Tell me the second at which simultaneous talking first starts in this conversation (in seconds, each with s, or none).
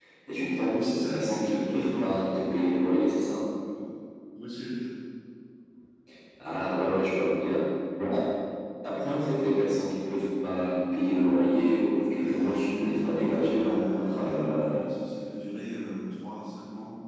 0.7 s